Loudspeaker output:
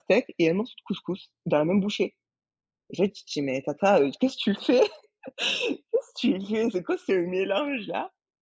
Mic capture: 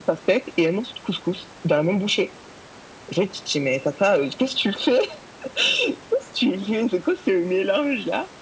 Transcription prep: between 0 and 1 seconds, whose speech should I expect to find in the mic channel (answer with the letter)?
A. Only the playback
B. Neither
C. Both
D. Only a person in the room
A